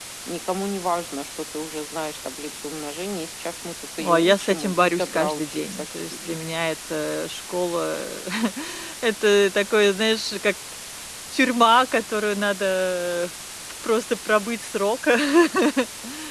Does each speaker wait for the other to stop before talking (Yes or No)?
No